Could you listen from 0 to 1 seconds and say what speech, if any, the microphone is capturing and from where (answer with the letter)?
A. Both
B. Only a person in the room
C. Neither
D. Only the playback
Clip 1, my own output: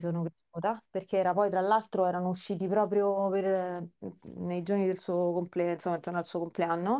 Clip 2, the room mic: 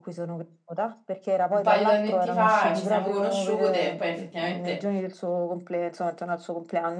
D